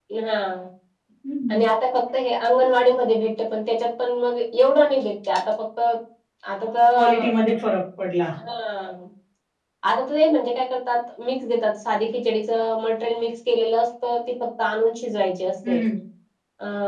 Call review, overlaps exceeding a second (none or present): none